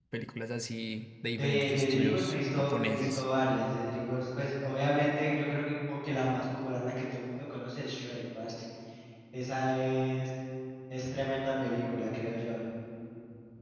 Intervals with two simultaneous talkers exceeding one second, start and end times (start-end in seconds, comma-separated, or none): 1.4-3.2